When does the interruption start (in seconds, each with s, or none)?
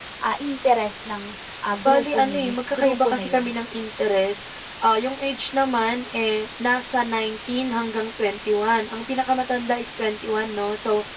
1.9 s